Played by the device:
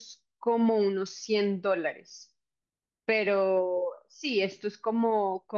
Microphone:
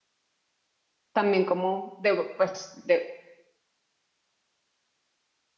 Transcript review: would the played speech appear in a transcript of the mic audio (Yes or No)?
No